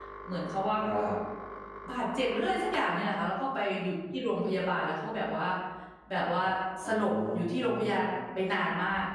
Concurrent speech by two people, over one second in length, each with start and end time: 6.8-8.1

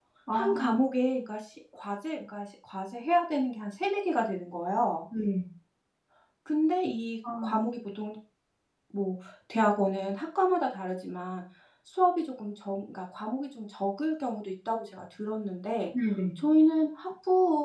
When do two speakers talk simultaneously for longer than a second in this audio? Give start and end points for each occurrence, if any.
none

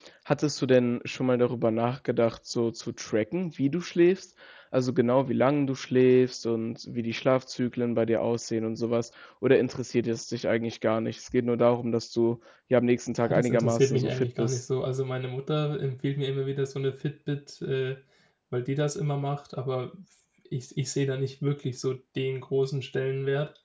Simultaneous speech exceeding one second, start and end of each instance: 13.2-14.7

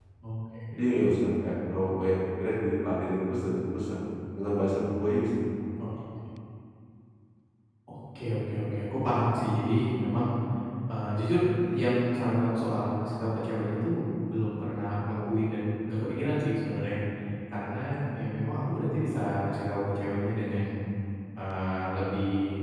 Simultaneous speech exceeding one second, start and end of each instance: none

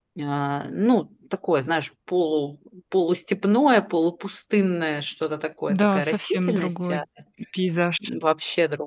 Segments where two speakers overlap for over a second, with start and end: 5.7-7.0

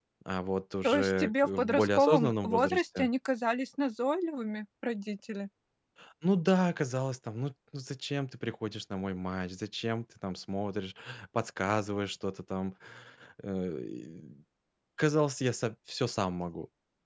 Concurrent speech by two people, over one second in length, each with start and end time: 0.8-3.1

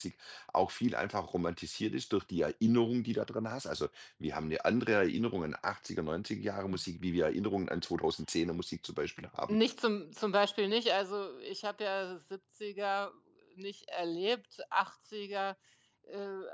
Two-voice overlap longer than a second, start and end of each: none

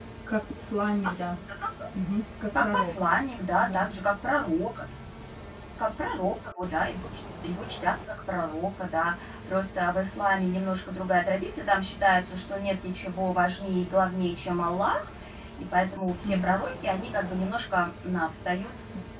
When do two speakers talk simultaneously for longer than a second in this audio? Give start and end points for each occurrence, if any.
none

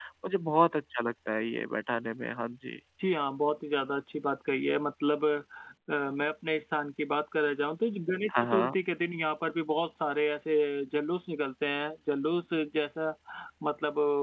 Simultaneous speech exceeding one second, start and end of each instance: none

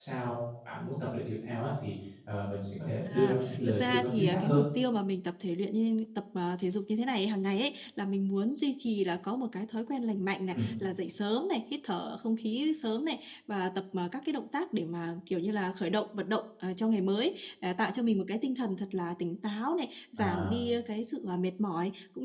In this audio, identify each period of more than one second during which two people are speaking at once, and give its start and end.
3.1-4.6

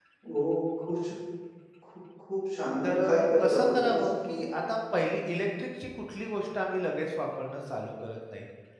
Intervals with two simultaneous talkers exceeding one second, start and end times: 2.8-4.5

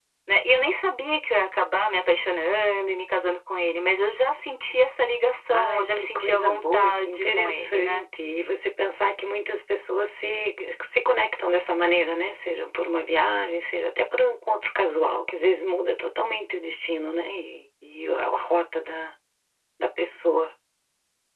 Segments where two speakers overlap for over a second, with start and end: 5.5-8.0

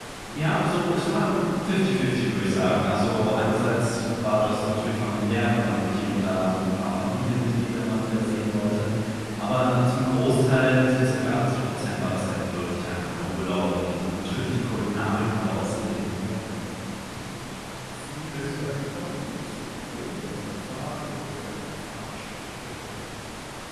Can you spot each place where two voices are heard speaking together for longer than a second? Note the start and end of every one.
none

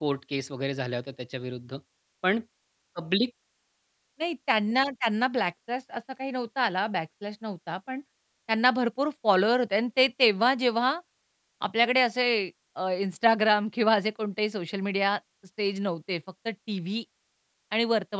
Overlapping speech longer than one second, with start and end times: none

